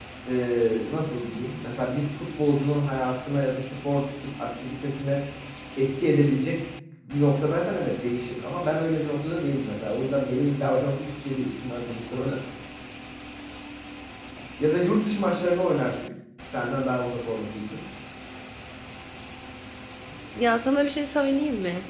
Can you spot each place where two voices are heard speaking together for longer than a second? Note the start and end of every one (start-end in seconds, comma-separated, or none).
none